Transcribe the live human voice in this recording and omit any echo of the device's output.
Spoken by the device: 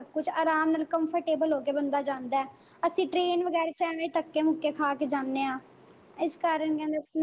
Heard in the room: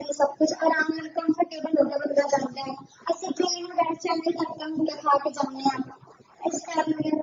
none

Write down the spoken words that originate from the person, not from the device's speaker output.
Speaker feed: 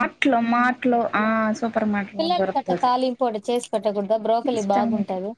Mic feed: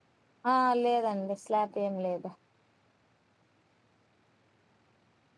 ఆ లేదండి స్లాపేంలేదు

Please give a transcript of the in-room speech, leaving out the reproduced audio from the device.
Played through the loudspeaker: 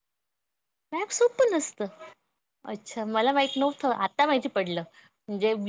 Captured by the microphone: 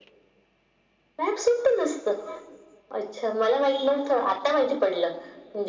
none

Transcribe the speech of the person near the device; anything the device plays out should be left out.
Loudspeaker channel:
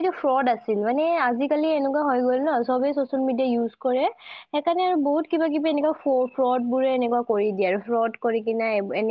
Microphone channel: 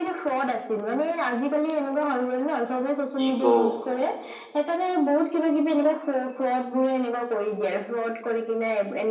কি কও।

